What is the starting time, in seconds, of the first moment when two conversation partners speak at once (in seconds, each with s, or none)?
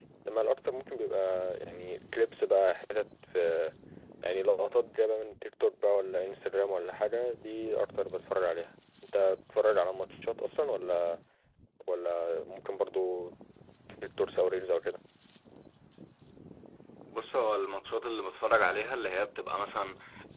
none